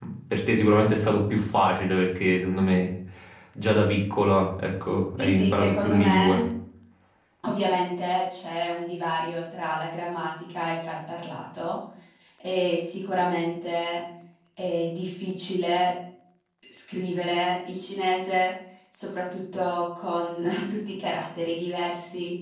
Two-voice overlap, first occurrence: 5.2 s

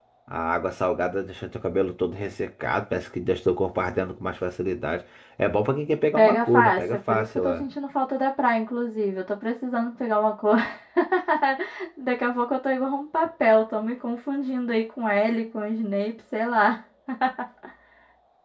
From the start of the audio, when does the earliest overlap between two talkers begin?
6.2 s

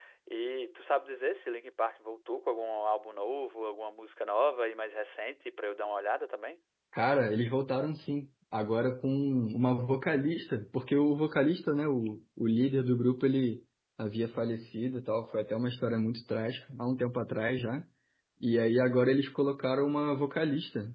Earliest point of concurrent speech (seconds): none

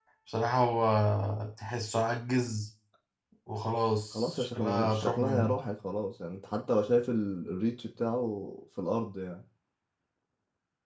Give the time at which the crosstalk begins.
4.1 s

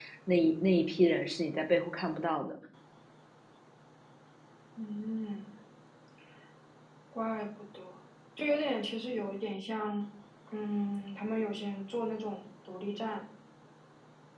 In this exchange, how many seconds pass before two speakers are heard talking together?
none

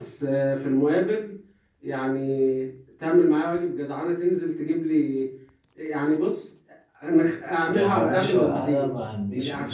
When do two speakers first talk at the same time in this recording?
7.7 s

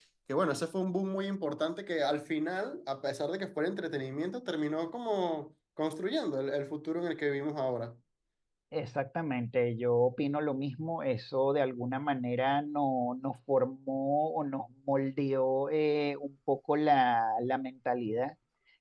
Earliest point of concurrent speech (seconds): none

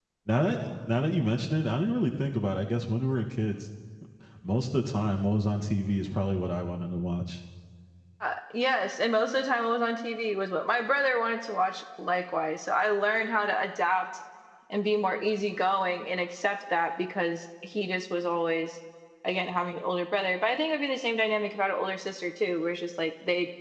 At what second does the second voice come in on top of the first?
none

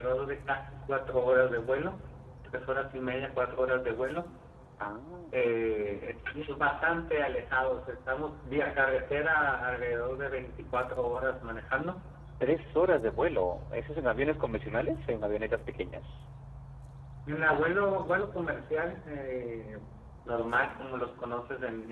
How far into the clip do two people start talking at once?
none

